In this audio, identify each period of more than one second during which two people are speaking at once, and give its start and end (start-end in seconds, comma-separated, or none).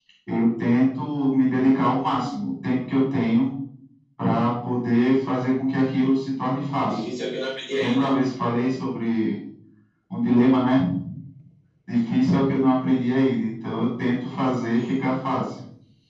none